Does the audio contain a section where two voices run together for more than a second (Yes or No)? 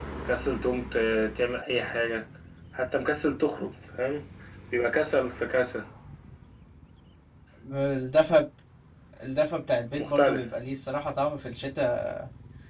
No